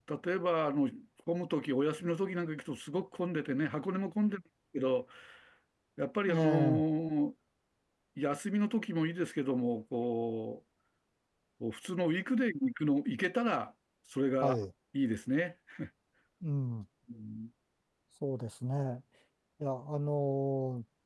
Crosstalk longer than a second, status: none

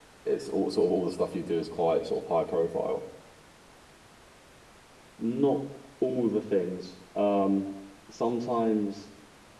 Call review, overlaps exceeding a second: none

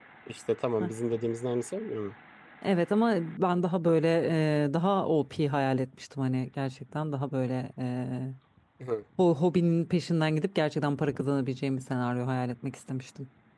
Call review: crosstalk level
none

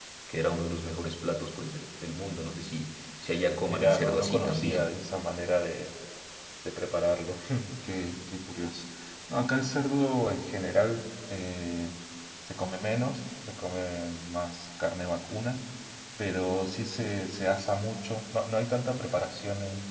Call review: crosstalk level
present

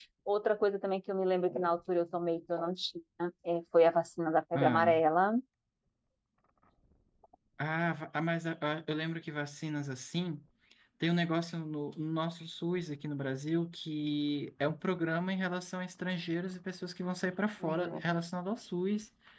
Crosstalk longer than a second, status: none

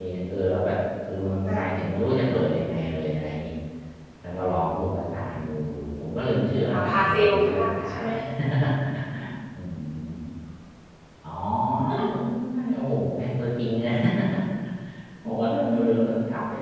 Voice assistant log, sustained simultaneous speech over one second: present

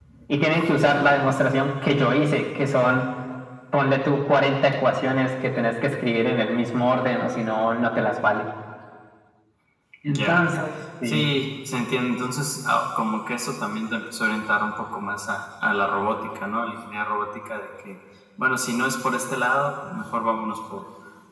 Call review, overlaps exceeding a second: none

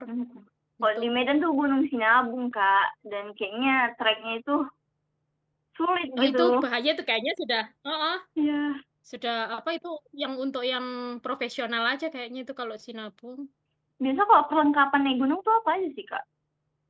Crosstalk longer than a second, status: none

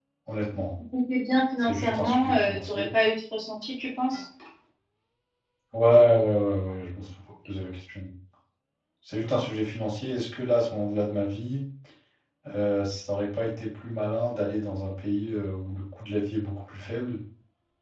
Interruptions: present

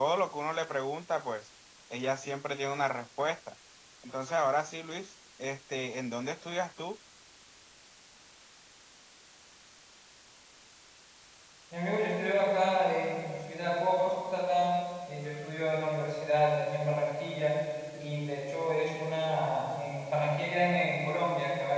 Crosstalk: none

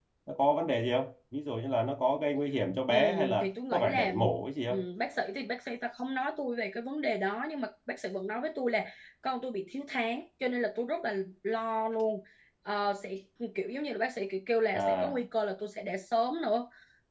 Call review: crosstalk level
present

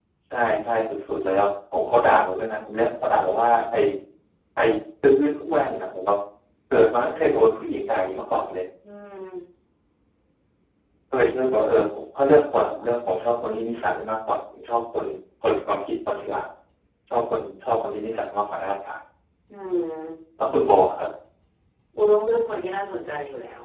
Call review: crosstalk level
none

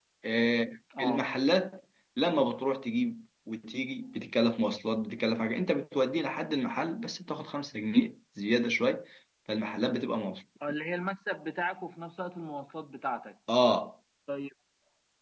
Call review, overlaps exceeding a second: none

